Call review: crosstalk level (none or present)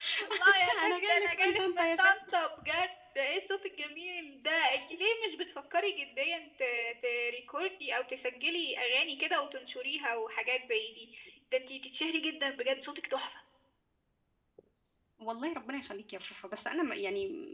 present